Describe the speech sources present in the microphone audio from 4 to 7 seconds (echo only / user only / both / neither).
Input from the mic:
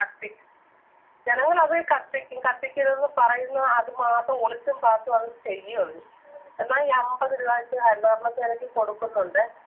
echo only